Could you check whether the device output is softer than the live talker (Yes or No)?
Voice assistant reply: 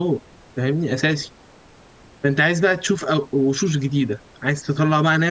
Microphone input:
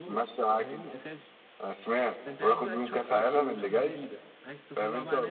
Yes